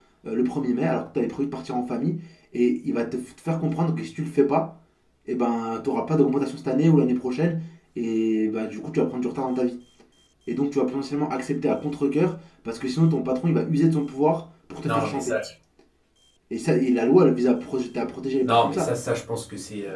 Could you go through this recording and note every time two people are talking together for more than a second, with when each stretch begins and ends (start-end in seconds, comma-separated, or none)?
none